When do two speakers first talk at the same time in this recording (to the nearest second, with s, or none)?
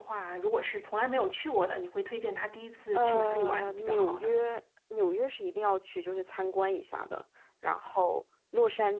3 s